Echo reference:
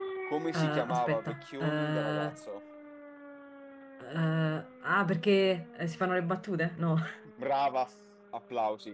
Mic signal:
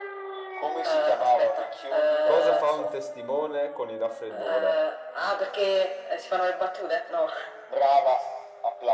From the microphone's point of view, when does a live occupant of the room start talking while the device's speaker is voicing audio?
2.2 s

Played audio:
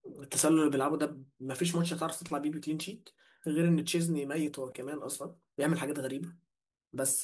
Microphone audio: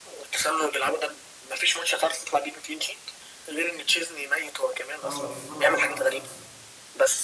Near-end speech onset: 5.0 s

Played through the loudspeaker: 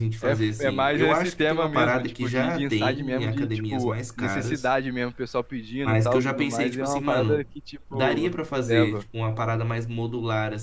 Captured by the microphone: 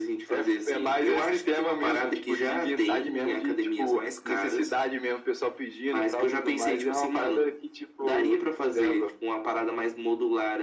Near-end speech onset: none

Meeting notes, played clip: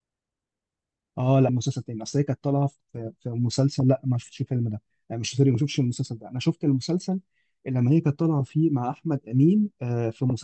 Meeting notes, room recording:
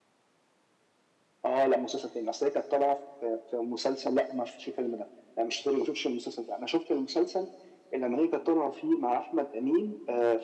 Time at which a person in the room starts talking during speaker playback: none

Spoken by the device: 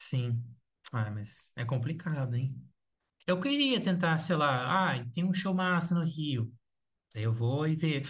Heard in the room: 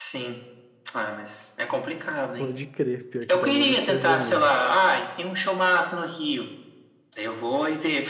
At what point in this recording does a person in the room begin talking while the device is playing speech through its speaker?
2.4 s

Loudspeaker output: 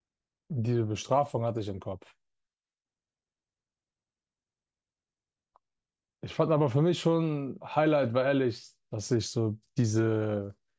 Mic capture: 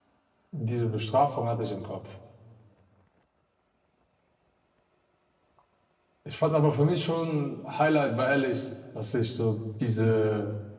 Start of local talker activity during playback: none

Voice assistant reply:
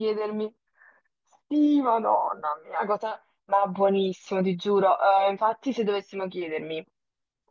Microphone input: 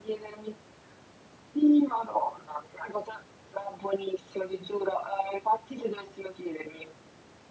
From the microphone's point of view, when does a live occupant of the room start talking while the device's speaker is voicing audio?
none

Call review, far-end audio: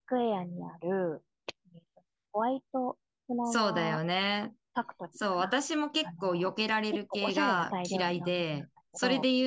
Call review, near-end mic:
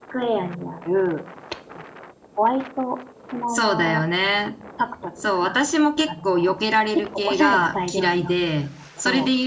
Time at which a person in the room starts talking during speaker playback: none

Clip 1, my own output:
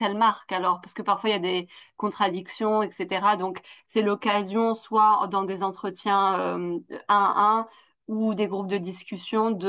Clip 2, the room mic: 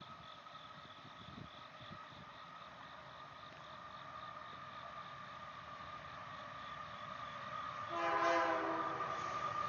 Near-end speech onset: none

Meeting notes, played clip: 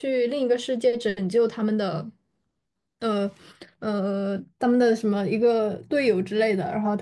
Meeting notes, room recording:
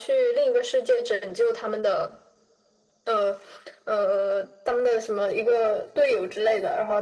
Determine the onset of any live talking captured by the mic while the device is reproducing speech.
none

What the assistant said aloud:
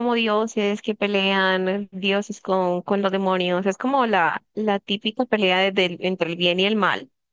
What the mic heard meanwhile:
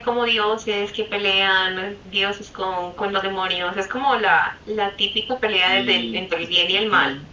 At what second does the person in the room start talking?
5.7 s

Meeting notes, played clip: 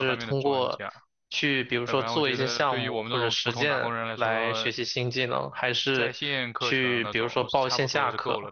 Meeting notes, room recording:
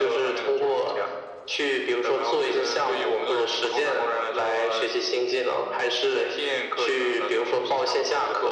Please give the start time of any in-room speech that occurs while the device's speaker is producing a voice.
none

